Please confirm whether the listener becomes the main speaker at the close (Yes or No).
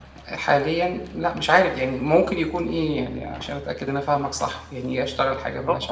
Yes